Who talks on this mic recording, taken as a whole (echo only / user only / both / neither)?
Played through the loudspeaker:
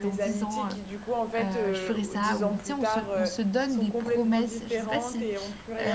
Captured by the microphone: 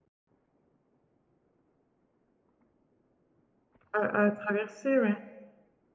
user only